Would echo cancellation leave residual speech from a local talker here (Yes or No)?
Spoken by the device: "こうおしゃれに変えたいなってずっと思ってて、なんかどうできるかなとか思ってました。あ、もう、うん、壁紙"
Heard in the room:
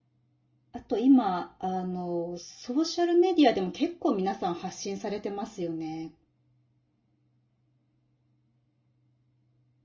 Yes